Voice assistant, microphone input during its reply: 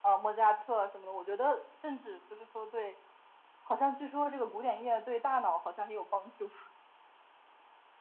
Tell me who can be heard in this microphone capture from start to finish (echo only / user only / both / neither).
echo only